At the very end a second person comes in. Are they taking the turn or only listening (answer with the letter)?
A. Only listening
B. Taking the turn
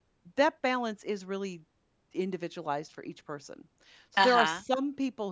A